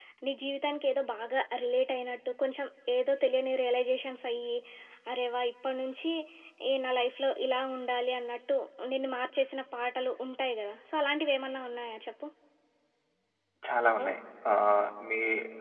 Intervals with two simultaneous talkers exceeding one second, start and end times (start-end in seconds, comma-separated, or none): none